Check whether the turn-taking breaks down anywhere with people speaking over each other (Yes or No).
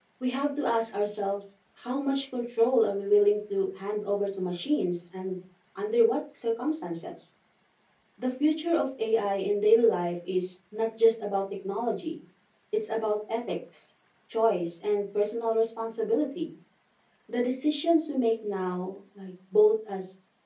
No